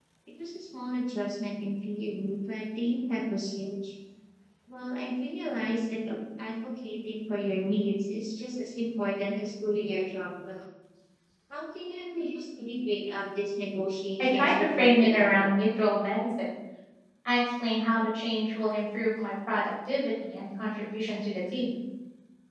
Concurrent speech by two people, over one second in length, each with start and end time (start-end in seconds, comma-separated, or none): 14.2-15.9